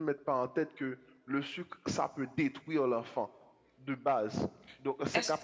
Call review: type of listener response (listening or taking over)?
listening